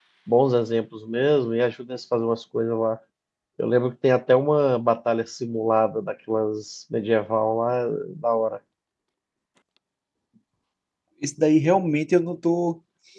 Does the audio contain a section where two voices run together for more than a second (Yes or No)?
No